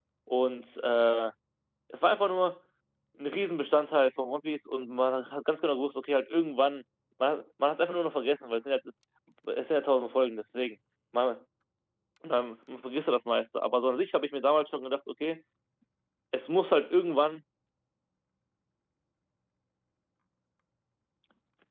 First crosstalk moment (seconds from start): none

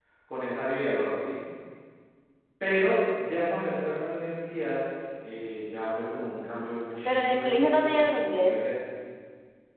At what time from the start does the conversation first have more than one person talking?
7.0 s

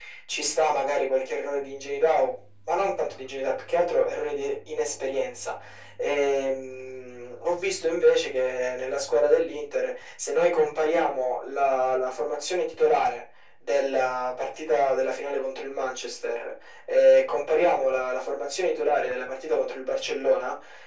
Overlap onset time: none

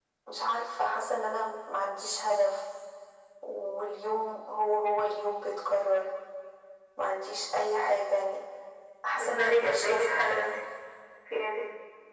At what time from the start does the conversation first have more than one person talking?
9.2 s

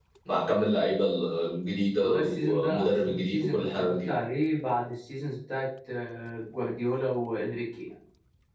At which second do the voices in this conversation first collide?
2.0 s

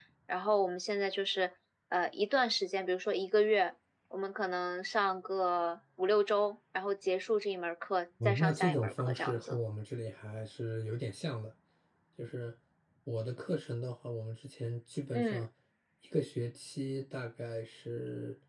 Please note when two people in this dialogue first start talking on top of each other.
8.2 s

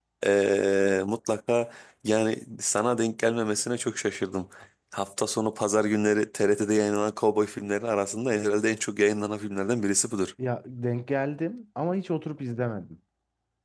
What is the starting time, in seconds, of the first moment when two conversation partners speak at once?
none

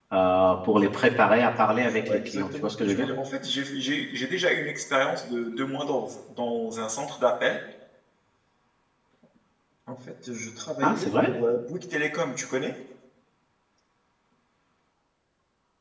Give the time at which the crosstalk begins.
1.8 s

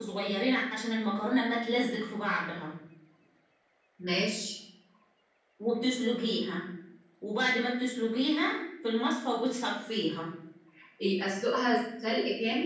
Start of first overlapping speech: none

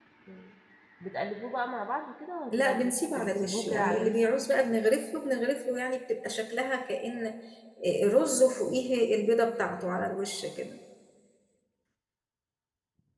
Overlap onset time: 2.5 s

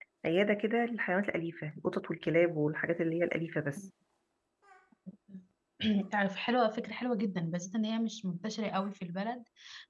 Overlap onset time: none

